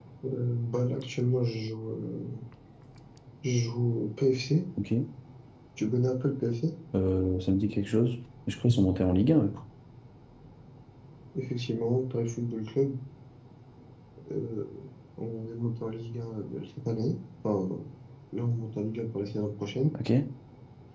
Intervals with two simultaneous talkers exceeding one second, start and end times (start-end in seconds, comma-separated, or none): none